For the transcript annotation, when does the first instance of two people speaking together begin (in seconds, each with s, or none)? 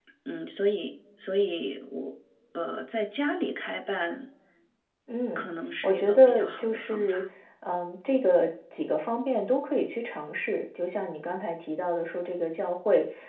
5.8 s